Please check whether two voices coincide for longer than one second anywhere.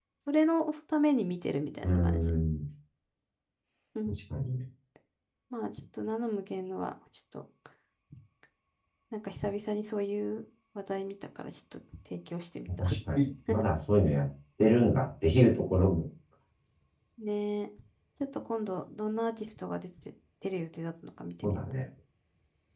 No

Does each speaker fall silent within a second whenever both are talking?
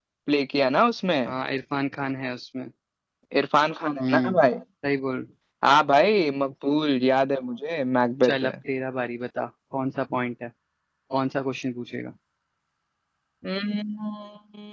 Yes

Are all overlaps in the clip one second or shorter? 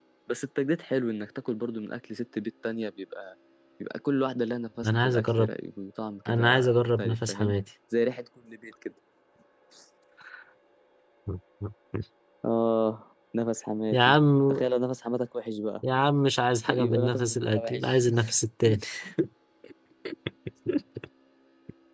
No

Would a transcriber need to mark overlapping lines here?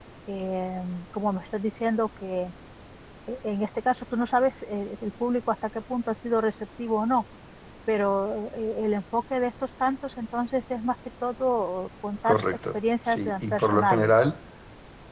Yes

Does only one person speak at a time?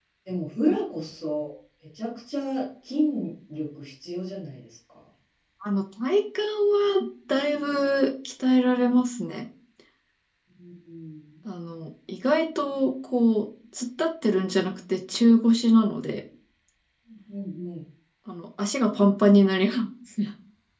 Yes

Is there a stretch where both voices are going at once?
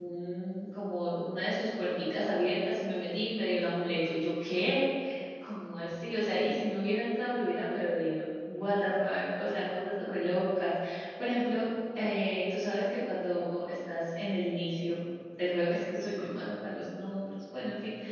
No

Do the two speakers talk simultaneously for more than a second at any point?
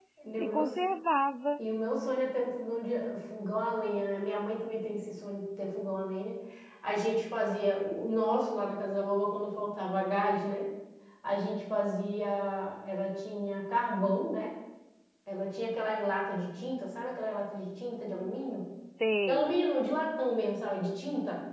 No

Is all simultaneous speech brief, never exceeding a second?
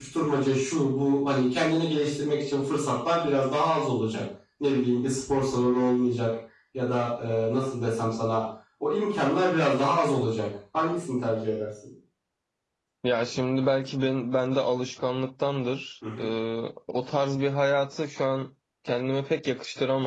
Yes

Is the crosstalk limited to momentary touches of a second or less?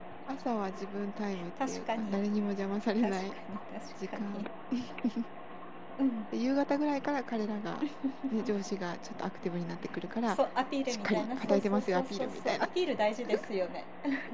No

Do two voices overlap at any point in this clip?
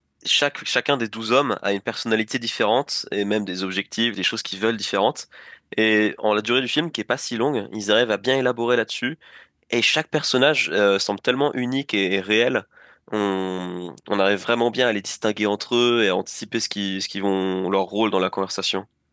No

